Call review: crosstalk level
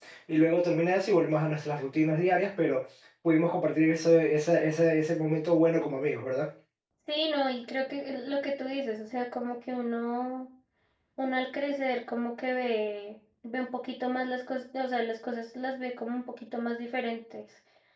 none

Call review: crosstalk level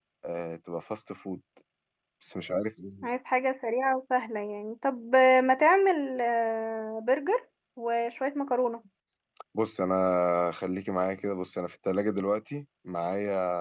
none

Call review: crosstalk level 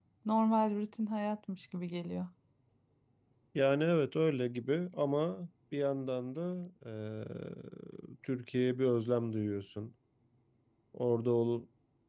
none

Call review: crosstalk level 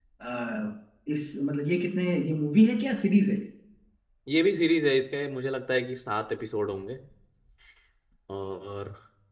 none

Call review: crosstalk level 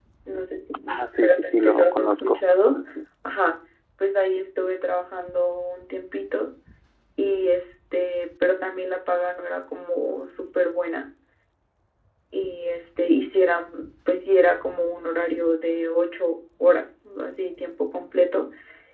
present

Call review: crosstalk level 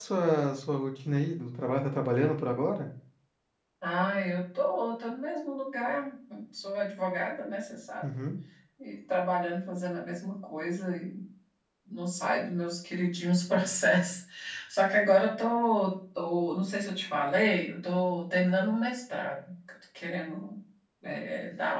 none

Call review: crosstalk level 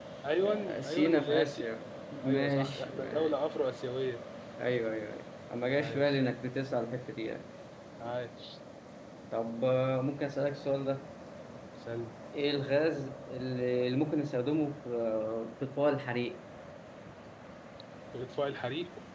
present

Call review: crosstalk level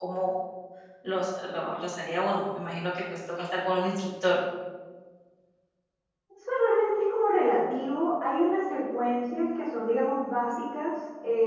none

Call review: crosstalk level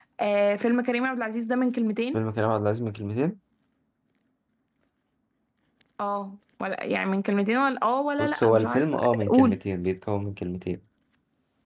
present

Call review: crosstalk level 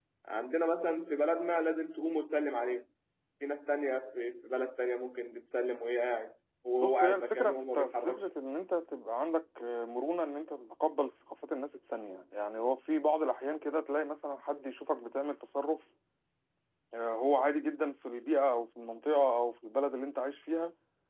present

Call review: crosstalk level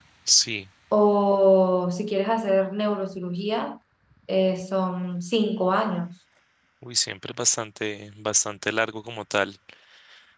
none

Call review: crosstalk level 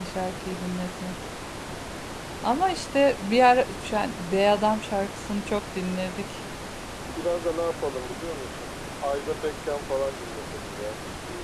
none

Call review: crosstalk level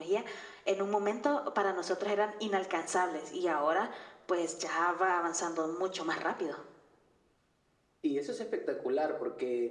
none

